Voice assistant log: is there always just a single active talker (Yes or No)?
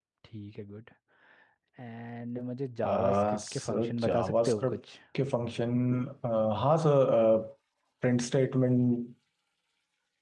No